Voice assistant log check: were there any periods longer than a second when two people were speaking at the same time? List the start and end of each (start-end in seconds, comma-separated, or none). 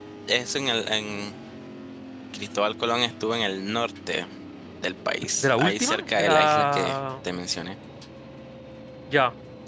5.4-7.0